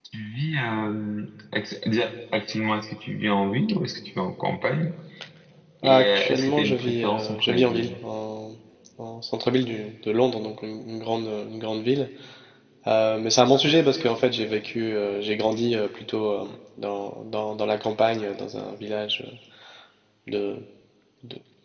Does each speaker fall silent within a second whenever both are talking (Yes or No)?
No